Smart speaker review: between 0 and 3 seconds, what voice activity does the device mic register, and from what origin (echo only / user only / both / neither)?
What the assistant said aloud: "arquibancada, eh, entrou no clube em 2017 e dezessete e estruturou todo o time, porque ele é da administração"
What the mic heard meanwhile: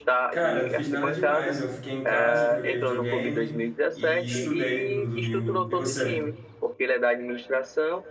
both